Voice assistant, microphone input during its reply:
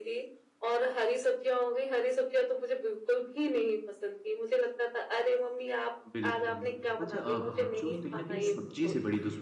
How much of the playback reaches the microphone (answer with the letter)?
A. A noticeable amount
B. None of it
A